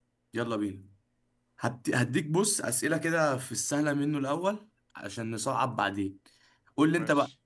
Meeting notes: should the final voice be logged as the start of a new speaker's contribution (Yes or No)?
No